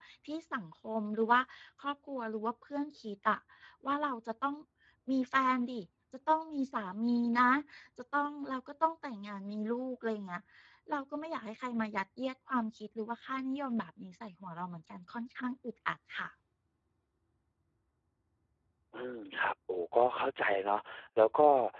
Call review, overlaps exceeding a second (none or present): none